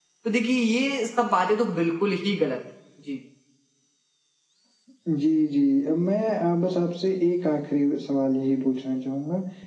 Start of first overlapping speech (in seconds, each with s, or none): none